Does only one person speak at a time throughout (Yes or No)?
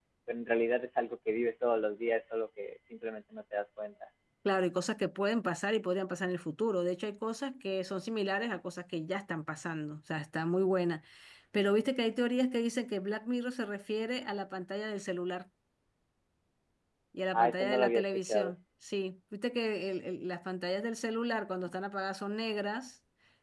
No